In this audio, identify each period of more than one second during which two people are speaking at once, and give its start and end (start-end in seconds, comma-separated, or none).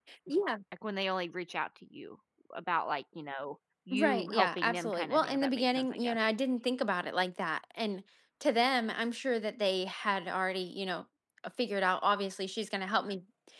3.9-6.2